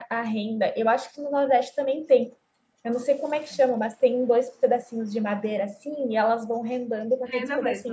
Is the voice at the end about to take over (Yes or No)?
No